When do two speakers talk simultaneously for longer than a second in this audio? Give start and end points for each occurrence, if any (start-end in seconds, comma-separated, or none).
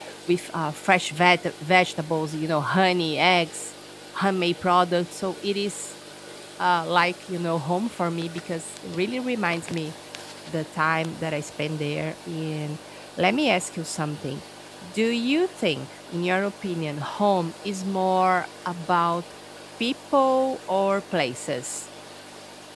none